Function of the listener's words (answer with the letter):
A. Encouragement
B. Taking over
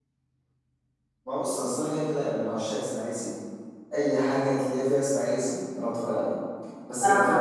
A